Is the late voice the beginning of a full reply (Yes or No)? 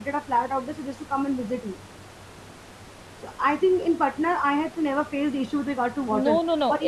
Yes